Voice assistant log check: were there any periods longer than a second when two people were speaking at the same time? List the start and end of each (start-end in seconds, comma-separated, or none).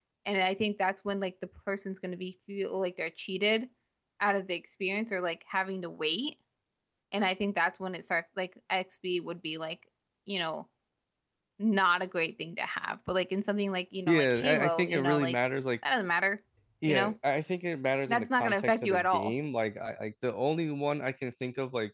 14.1-15.4, 18.1-19.4